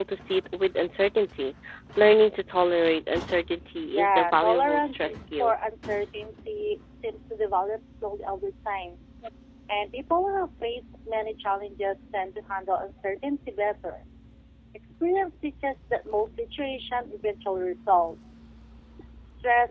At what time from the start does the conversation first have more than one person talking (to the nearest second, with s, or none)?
4 s